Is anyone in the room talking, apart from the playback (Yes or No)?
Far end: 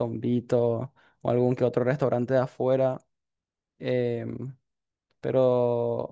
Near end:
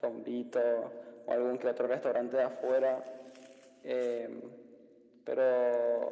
No